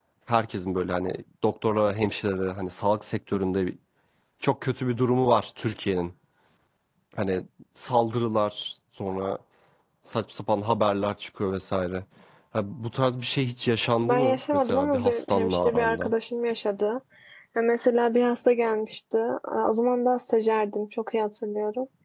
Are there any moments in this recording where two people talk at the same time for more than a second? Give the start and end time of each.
14.0-16.1

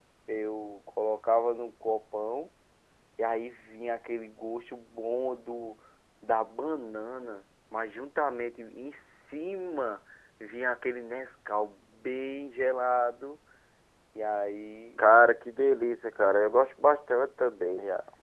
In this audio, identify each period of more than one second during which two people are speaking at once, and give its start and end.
none

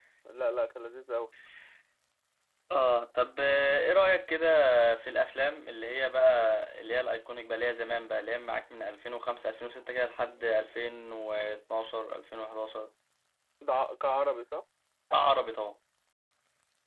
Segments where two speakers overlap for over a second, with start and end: none

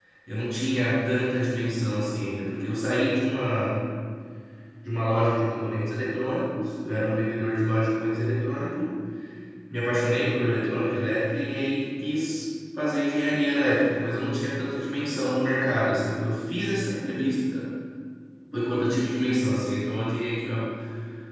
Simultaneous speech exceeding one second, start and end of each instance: none

